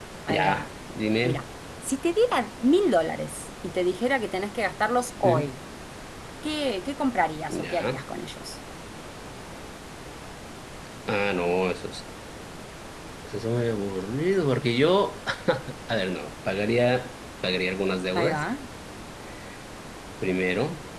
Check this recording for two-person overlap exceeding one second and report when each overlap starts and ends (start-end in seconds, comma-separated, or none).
none